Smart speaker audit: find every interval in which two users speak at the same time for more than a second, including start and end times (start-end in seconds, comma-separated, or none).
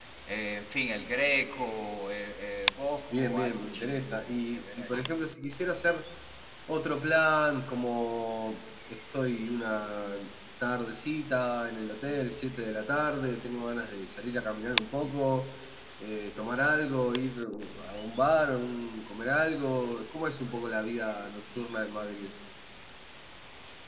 3.1-5.1